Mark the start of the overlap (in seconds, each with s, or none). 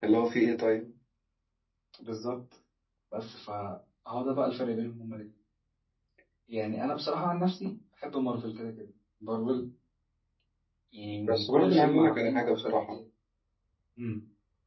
11.3 s